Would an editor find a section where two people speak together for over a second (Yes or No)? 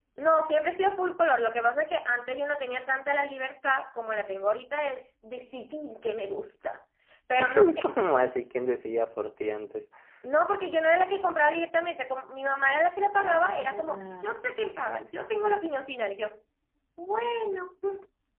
Yes